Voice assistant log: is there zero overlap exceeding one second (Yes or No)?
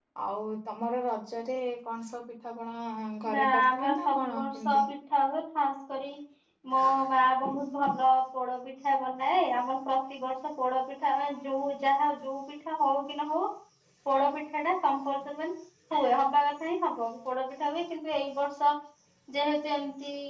No